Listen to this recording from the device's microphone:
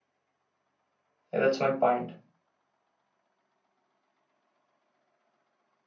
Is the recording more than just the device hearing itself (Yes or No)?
Yes